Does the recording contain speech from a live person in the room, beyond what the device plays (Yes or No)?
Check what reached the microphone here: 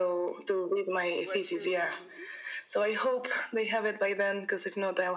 Yes